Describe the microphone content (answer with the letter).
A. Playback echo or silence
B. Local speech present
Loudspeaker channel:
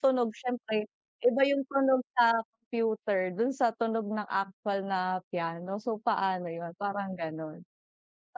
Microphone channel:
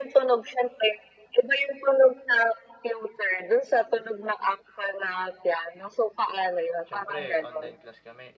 B